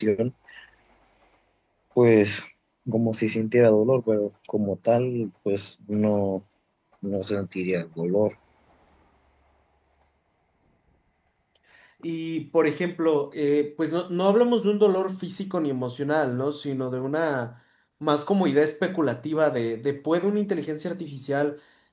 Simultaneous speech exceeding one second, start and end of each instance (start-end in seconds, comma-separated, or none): none